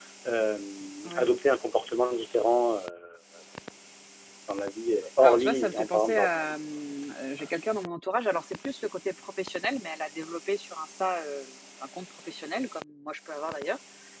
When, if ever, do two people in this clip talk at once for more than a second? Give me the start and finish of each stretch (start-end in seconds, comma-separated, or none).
5.2-6.6